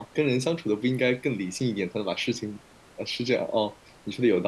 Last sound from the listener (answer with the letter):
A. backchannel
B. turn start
B